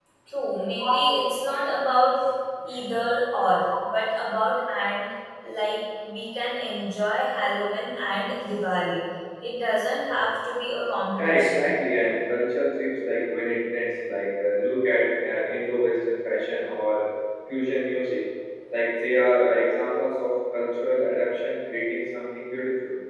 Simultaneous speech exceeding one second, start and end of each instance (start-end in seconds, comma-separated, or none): none